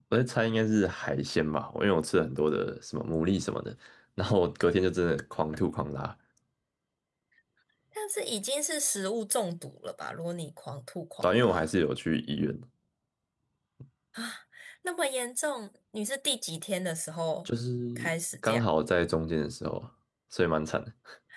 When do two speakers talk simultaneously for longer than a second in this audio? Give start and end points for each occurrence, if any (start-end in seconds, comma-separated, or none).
none